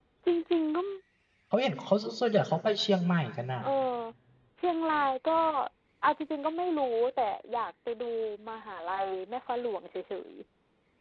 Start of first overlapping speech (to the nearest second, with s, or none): none